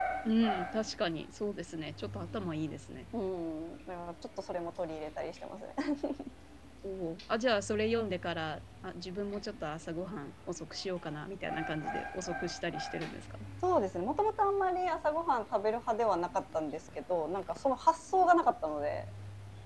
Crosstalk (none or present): none